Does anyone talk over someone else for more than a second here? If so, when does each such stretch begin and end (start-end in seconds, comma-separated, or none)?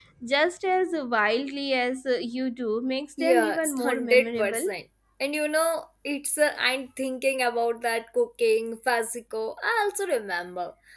3.2-4.7